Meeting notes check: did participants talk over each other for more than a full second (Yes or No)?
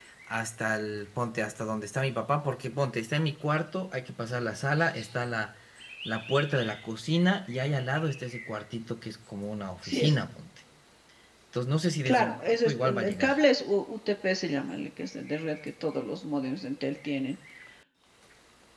Yes